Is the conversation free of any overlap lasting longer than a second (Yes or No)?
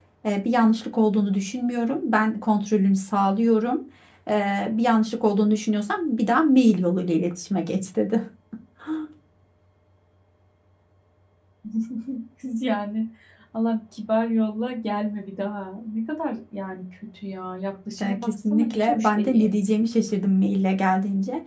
No